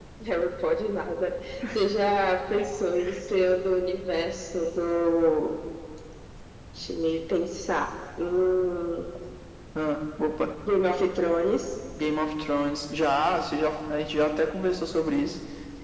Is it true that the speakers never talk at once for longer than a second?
Yes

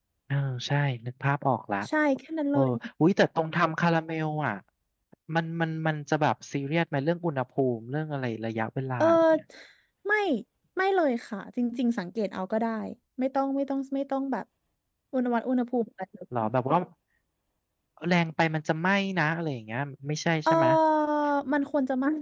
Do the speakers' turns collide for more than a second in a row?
No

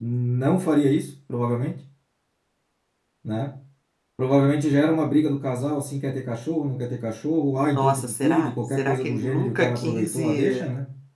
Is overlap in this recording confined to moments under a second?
No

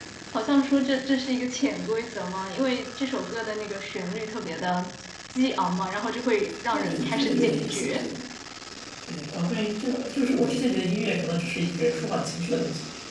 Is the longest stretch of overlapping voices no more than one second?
No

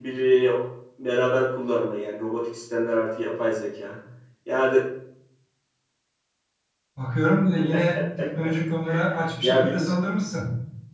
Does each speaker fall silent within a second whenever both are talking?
Yes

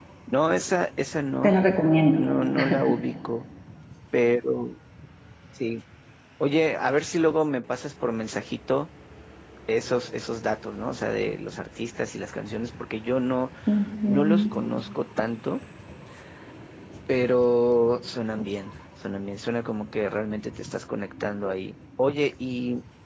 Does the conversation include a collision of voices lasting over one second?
No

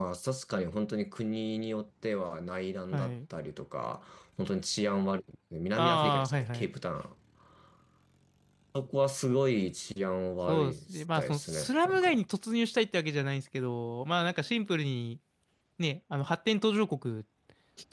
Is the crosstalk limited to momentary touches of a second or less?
No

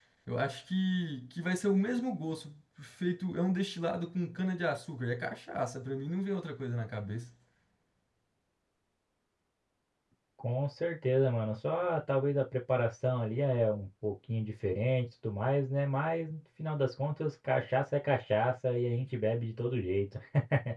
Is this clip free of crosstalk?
Yes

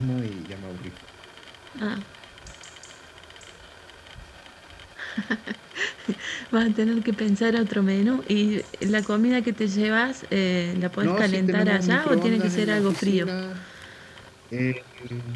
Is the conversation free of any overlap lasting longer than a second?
No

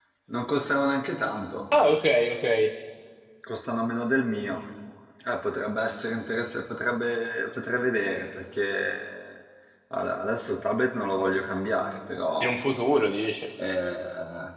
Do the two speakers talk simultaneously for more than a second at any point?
No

